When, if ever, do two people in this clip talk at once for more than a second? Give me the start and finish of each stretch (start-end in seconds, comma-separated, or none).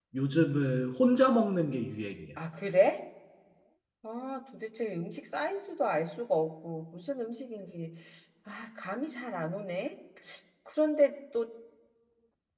none